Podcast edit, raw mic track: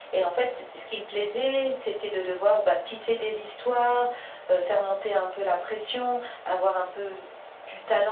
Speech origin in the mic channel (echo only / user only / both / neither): echo only